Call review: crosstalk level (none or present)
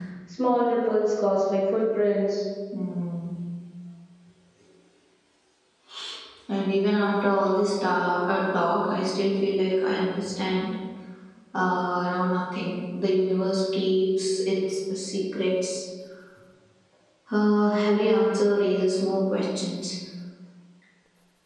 none